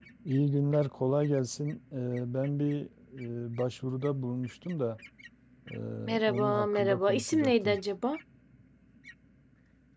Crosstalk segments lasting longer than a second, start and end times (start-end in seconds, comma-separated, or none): 6.2-7.8